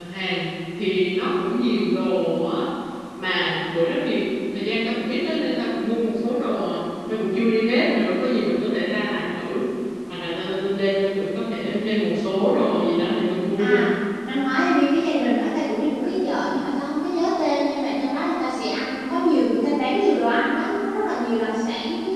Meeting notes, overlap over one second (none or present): none